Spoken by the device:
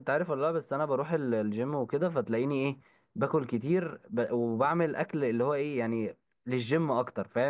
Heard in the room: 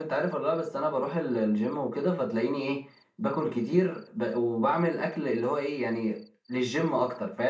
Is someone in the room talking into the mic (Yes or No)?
No